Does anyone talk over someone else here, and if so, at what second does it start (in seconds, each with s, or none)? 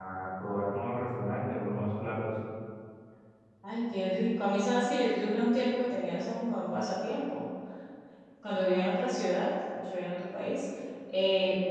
none